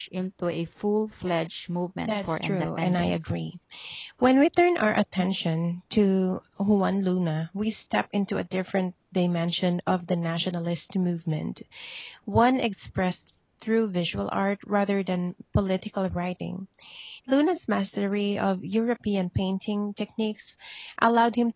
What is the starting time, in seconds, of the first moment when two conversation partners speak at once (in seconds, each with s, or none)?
2.0 s